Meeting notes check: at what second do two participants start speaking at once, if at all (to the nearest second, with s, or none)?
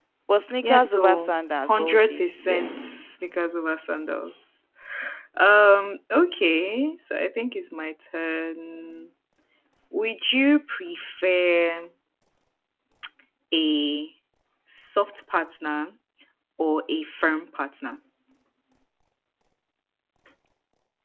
1 s